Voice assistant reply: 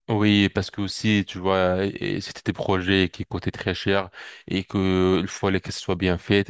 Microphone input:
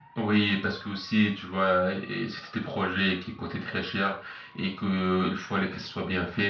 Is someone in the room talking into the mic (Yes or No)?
No